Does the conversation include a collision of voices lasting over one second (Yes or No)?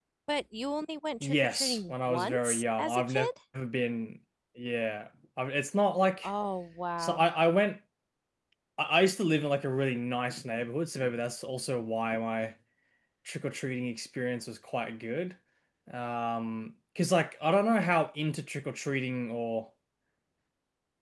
Yes